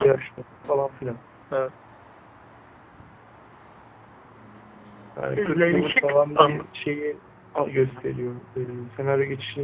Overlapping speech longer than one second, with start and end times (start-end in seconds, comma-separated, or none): 5.4-6.7